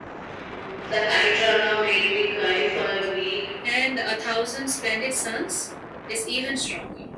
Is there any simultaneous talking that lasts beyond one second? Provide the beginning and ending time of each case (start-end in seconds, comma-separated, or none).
none